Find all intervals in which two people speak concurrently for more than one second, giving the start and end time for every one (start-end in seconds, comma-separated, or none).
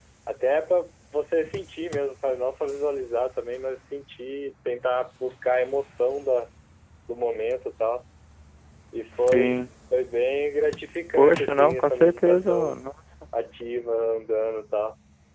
11.2-12.7